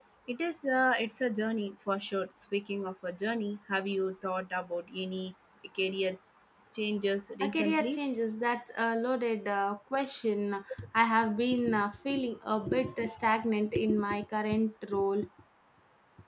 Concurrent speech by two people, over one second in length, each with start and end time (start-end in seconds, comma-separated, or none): none